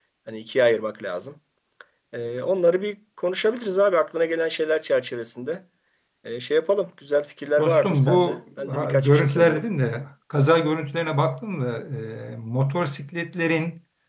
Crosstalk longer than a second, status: present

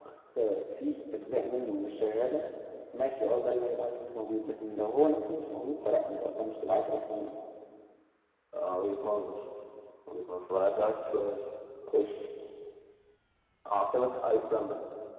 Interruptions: none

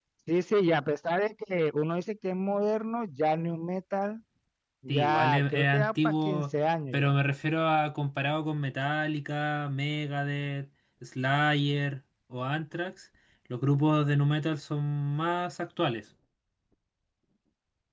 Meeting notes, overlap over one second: present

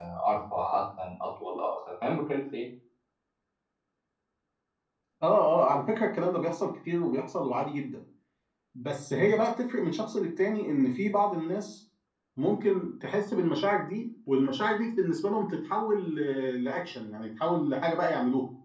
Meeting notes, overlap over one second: none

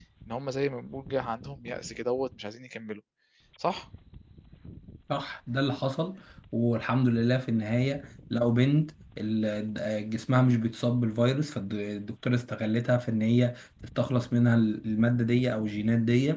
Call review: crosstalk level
none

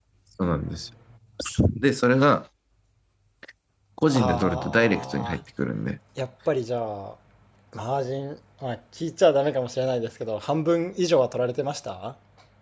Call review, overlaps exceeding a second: present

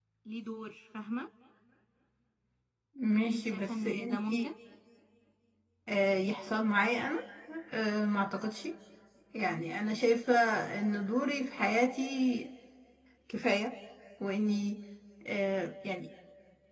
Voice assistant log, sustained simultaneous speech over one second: present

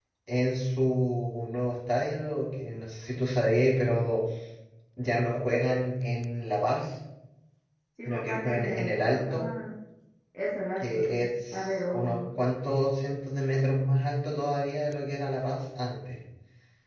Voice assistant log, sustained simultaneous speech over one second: present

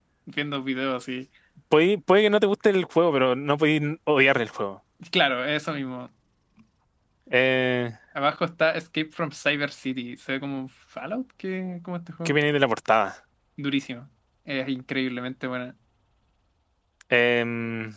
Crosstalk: none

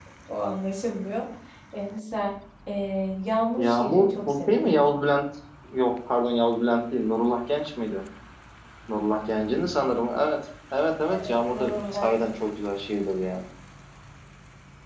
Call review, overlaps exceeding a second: present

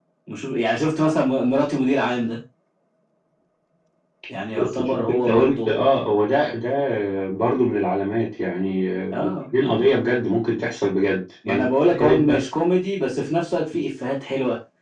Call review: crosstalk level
present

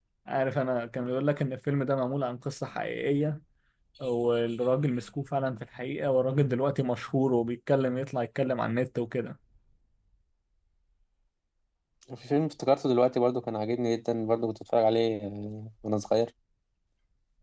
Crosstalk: none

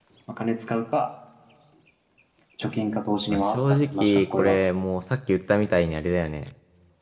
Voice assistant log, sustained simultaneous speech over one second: present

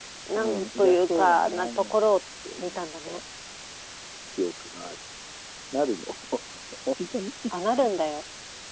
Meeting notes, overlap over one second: present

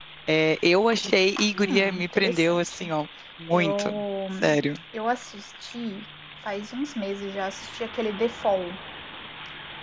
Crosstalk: present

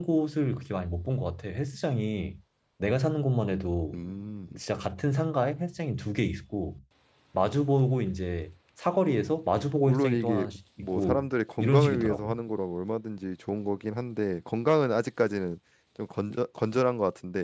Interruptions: present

